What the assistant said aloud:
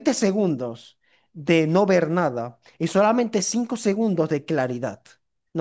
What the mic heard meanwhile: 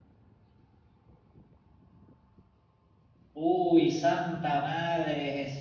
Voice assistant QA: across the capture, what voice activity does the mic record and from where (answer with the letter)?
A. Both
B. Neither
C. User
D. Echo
C